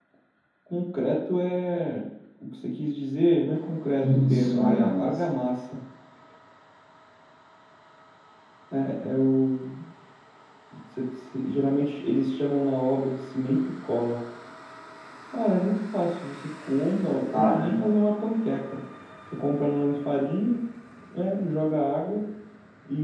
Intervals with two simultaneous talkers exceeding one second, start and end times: 4.0-5.3

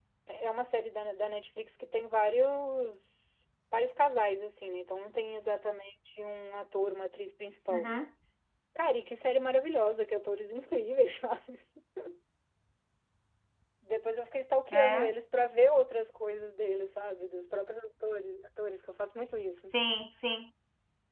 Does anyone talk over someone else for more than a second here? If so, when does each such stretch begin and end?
none

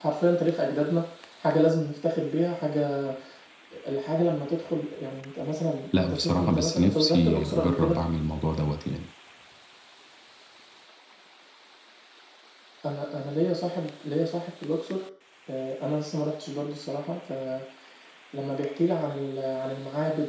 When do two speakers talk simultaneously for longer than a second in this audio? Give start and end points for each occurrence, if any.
6.0-8.0

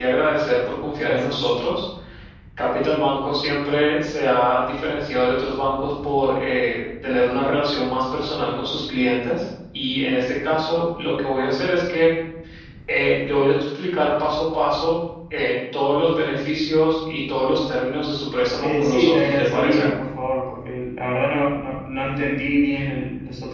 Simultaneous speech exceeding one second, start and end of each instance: 18.6-19.9

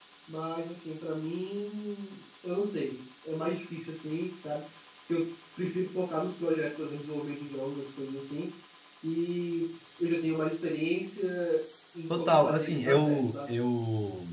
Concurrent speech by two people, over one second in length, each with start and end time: 12.2-13.4

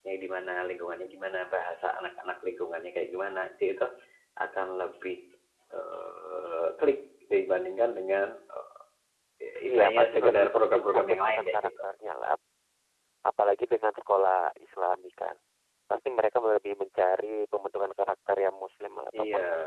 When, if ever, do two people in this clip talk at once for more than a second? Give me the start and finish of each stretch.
9.7-11.6

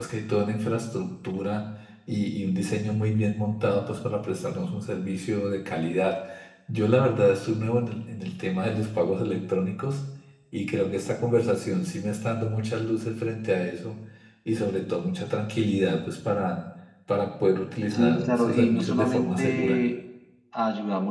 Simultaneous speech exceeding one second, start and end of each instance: 17.9-19.8

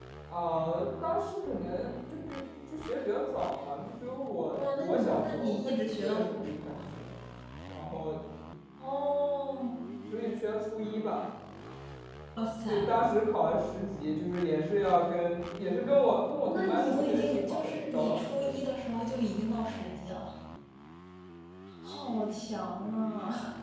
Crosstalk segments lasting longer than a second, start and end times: 4.5-6.8, 16.4-18.6

